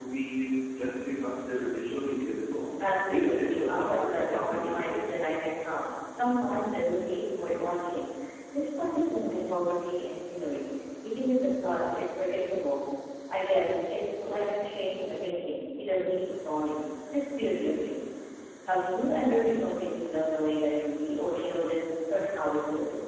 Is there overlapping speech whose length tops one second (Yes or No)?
Yes